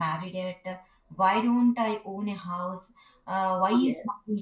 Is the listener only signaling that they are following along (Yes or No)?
Yes